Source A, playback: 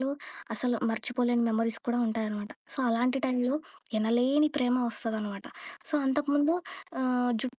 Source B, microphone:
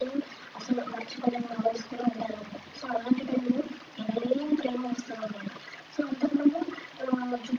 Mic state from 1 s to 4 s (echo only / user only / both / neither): echo only